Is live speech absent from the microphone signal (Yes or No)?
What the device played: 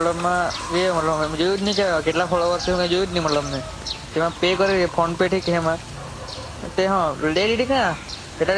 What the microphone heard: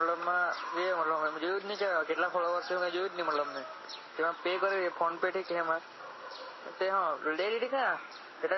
Yes